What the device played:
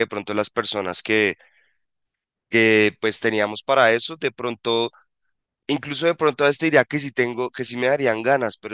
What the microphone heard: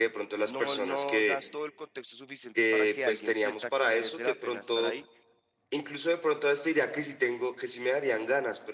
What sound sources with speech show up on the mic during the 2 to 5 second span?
both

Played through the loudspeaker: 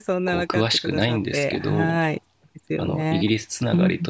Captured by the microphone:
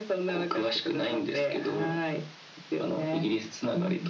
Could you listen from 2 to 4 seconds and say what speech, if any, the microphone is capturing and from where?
echo only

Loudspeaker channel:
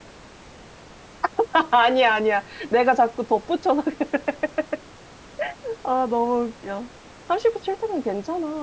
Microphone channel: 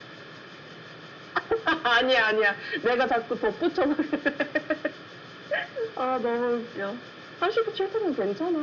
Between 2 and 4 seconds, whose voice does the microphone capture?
echo only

